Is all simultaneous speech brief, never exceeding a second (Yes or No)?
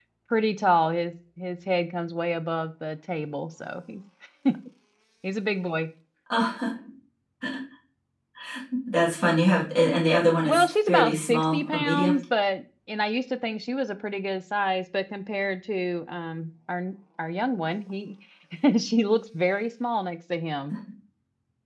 No